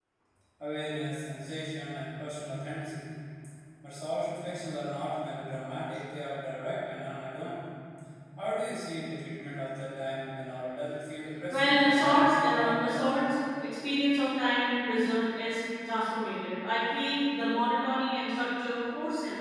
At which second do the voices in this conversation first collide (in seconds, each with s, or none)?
11.5 s